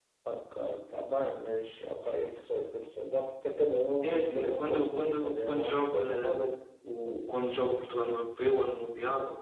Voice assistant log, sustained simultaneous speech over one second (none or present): present